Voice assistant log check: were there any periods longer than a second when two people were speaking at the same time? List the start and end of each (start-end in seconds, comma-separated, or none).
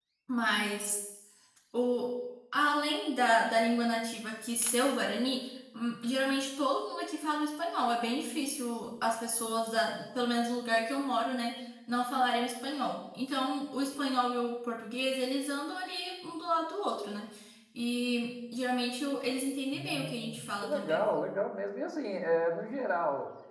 19.7-21.1